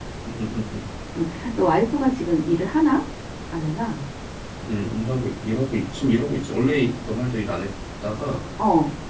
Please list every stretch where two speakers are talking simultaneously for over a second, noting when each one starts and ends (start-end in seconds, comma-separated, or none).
none